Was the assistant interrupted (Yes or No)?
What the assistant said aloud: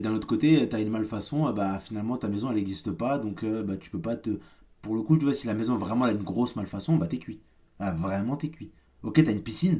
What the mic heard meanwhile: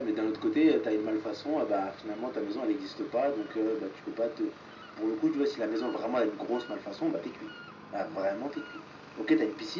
No